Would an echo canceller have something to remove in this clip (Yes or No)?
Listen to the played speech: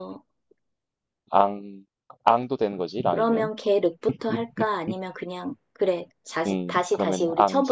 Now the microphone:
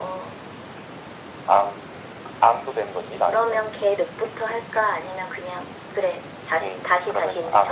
Yes